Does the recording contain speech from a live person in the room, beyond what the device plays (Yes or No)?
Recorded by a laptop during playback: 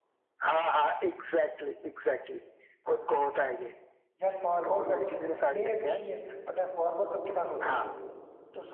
Yes